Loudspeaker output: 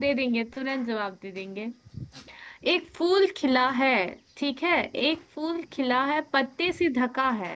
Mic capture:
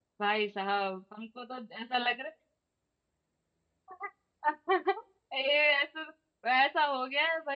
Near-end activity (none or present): present